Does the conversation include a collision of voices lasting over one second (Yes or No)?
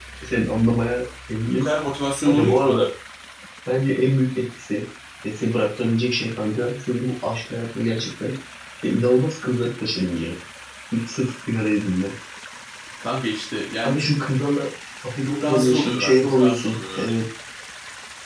Yes